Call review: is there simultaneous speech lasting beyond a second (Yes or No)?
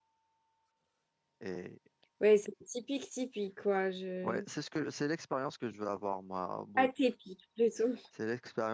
No